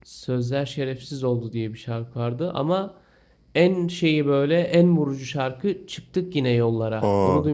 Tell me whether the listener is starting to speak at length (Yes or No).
Yes